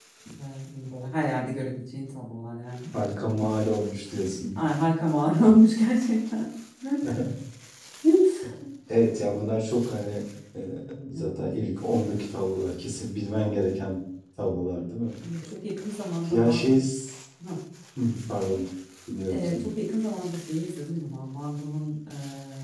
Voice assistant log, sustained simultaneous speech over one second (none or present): none